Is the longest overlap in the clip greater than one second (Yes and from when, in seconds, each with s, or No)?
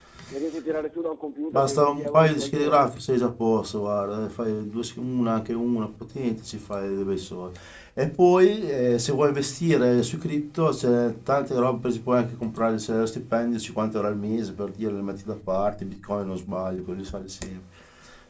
Yes, from 1.5 s